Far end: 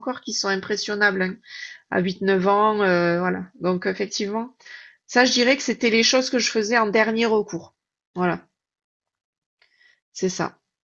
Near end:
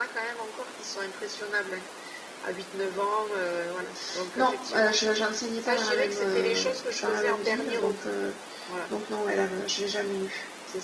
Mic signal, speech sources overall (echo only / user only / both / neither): both